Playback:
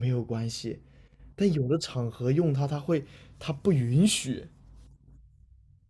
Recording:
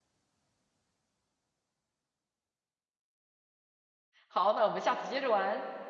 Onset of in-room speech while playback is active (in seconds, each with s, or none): 4.3 s